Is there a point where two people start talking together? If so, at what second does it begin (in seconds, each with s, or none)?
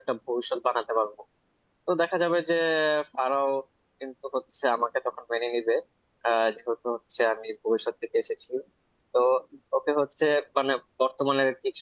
none